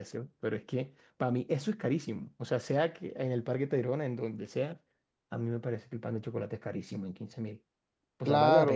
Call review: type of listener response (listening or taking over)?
taking over